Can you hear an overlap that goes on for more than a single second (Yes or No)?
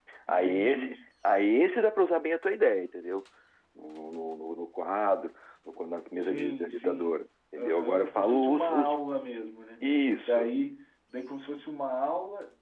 Yes